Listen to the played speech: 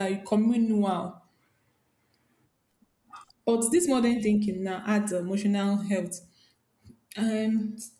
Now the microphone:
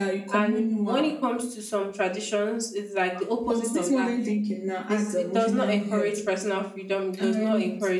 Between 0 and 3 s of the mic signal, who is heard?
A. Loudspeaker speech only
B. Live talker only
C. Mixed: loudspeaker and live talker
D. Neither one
C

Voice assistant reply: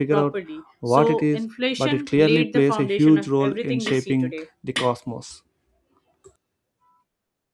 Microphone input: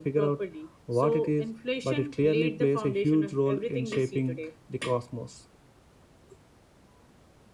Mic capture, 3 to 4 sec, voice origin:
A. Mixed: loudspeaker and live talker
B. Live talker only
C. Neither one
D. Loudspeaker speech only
D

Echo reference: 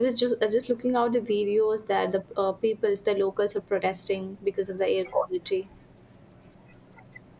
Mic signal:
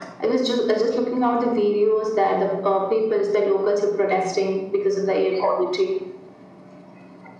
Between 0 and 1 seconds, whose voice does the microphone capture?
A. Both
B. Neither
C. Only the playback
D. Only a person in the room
C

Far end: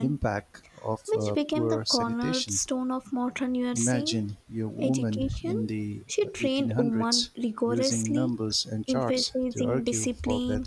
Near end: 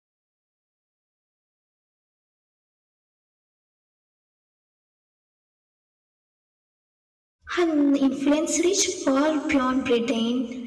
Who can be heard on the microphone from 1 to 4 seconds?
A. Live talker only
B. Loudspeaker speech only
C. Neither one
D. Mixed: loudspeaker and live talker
C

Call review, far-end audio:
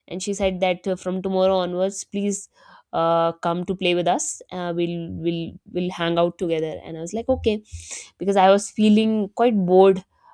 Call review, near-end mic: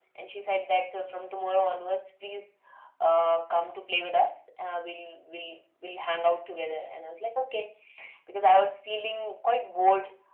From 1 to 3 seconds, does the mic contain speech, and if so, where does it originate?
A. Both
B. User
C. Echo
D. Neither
C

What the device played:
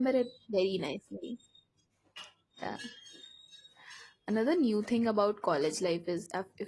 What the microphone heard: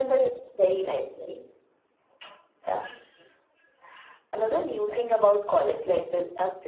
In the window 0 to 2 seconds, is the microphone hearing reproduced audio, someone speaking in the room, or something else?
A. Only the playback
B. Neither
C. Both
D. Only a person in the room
A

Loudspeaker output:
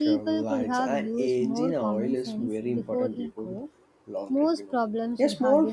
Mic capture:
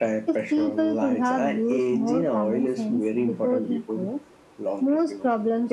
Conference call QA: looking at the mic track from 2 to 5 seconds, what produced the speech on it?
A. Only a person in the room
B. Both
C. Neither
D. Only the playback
D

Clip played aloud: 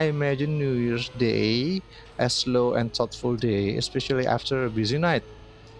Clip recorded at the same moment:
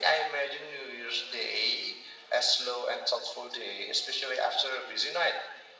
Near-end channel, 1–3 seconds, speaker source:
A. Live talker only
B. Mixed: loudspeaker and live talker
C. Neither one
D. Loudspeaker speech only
D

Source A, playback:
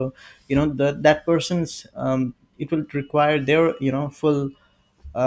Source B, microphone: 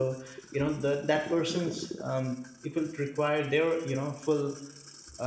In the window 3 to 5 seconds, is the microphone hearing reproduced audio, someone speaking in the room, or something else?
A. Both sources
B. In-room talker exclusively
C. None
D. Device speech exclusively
D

